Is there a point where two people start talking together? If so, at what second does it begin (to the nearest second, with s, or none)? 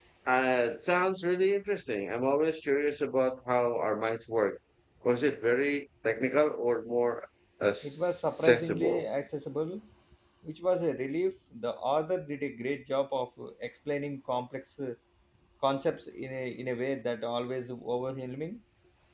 8 s